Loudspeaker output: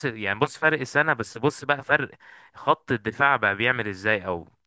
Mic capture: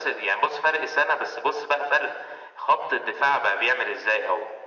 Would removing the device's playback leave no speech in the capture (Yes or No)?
Yes